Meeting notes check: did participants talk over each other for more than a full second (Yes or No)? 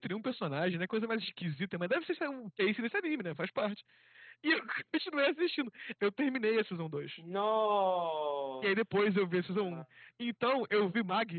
No